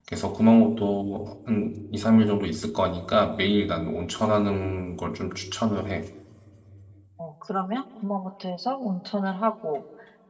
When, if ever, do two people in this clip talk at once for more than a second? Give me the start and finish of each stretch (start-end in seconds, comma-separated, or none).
none